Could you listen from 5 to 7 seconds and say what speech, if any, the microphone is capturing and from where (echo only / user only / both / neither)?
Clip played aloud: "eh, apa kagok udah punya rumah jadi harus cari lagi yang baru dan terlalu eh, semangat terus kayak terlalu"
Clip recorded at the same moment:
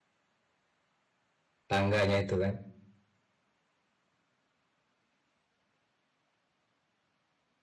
neither